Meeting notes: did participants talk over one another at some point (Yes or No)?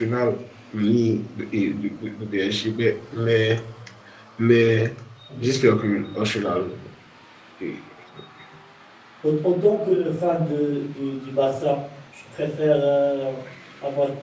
No